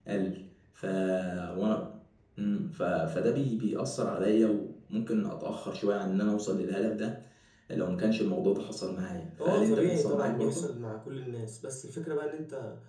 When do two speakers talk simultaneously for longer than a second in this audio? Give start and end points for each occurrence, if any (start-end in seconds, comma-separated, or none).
9.4-10.7